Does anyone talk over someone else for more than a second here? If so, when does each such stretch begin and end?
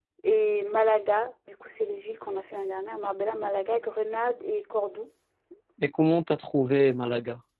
none

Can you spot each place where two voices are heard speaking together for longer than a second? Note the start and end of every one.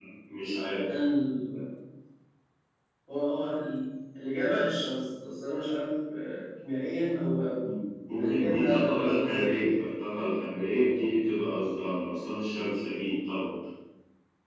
8.2-9.5

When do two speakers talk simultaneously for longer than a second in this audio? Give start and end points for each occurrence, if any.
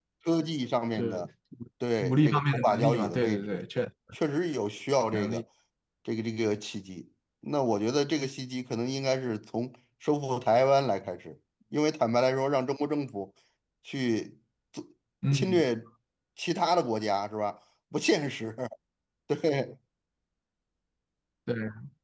2.0-3.6

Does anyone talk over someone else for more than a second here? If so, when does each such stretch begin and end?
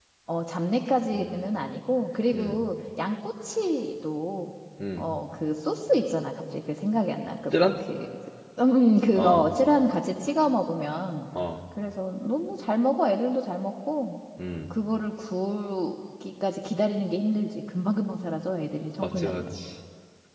none

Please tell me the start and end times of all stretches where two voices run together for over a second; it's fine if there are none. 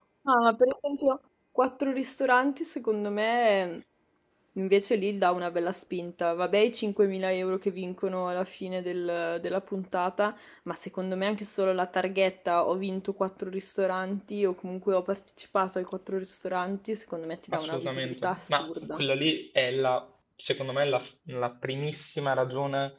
17.5-19.0

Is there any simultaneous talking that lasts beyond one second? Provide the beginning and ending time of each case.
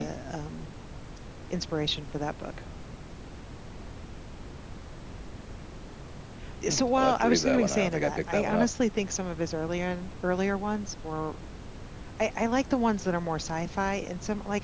6.7-8.7

